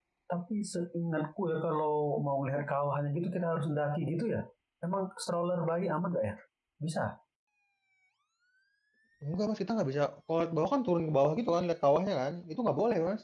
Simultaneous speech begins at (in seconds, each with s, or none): none